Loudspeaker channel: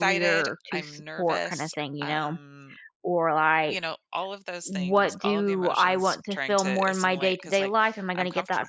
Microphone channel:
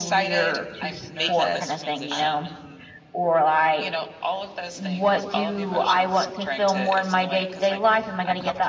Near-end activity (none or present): present